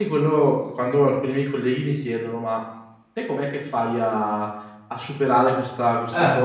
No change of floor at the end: Yes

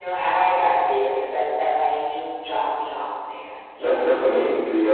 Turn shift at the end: Yes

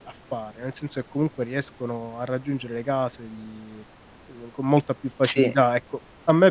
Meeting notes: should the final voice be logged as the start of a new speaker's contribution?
No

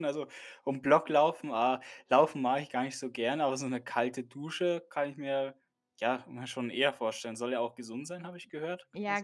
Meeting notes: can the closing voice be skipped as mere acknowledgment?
No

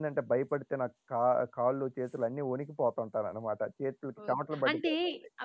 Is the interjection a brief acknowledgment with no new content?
No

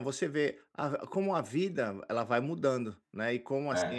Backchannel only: Yes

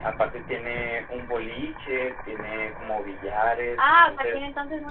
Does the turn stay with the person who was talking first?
No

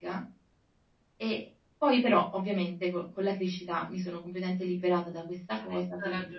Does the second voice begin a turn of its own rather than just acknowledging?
Yes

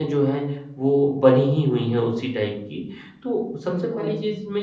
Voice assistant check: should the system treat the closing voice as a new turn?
No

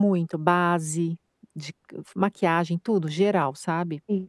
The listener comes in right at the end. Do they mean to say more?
Yes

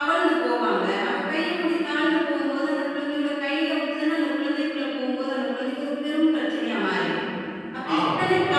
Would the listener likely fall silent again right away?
No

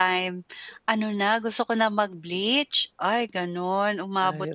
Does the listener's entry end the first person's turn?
No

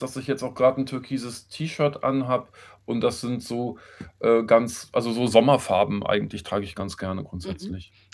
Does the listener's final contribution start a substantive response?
Yes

